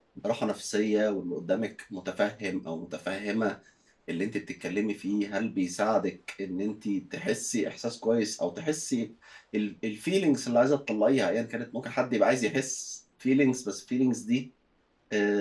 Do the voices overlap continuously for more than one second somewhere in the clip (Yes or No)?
No